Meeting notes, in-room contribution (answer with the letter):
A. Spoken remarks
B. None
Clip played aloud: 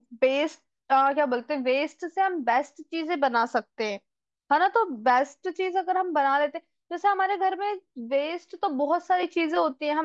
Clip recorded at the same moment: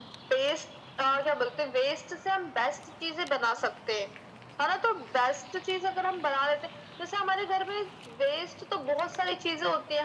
B